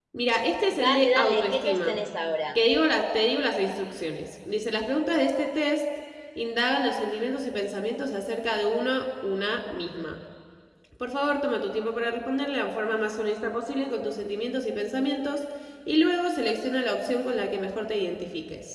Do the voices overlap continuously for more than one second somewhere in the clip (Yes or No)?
Yes